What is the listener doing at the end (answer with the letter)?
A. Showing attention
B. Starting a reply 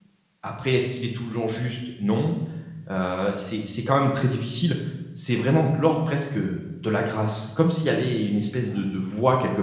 A